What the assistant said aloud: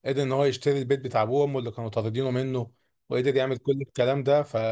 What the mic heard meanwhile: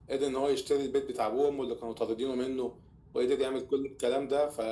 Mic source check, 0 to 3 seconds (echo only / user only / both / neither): echo only